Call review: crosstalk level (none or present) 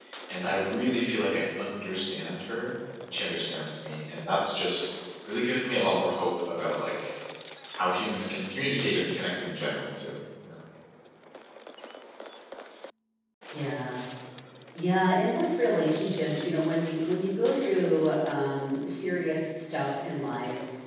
none